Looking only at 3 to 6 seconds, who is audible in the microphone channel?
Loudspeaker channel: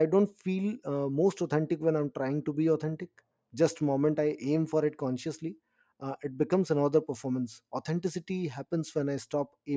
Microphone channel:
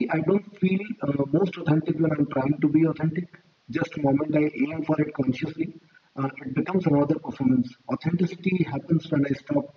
echo only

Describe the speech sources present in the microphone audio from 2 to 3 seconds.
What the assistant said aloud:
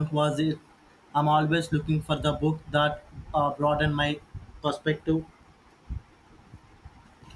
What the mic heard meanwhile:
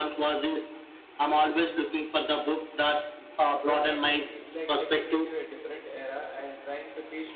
echo only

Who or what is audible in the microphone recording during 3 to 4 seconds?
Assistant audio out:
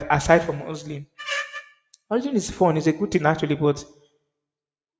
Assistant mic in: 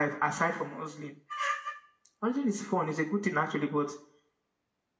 echo only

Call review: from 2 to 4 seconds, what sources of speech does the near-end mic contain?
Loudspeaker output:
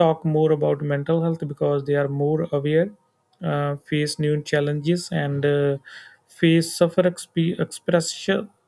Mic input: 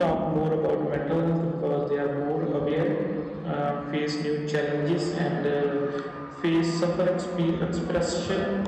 echo only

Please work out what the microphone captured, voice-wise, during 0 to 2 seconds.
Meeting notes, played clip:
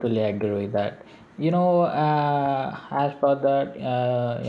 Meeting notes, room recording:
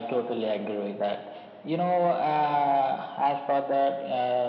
echo only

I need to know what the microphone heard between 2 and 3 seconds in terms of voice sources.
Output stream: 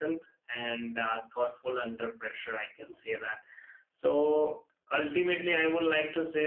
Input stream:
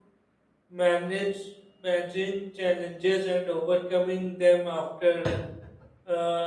user only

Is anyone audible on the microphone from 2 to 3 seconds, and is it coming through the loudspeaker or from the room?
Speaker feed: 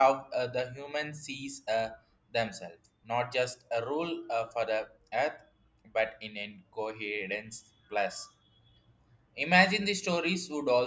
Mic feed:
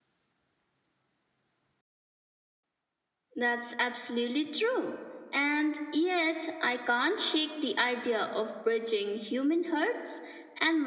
neither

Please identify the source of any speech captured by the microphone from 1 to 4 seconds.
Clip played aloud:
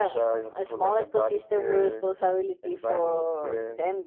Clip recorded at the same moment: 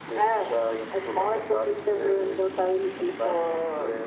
echo only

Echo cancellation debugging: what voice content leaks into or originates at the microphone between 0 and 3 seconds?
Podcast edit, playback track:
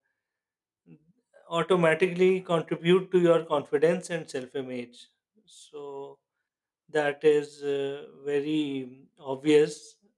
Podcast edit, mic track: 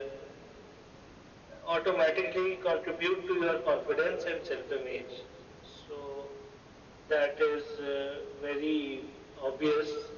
echo only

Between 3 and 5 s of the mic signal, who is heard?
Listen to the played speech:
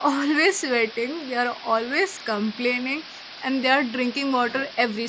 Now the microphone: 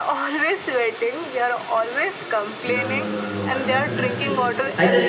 both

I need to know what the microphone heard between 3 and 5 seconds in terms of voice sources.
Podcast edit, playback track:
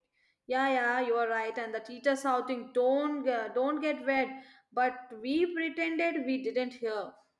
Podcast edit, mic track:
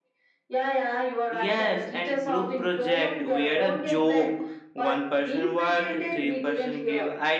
both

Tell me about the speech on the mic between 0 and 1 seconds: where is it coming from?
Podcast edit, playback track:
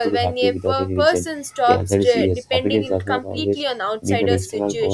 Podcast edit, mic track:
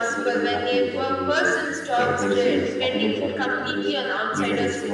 echo only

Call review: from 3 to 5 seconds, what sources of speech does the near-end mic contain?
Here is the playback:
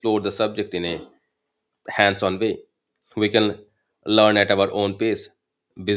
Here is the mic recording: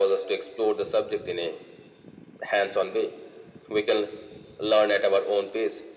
echo only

